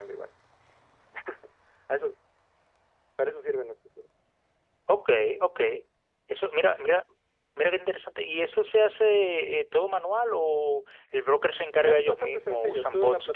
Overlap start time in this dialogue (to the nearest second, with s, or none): 12 s